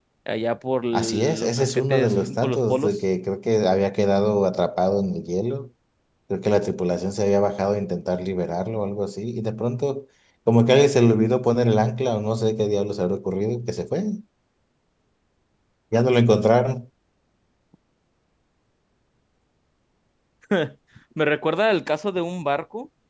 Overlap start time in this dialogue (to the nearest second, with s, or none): 1 s